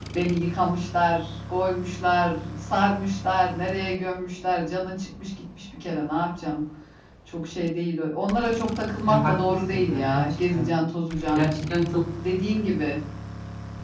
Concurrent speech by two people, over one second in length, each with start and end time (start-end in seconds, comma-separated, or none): 9.1-10.7